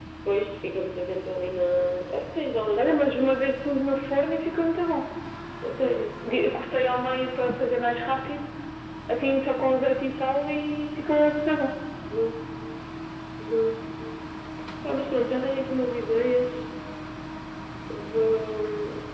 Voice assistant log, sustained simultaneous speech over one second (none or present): none